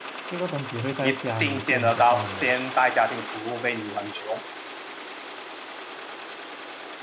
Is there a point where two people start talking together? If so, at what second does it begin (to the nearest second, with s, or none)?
1 s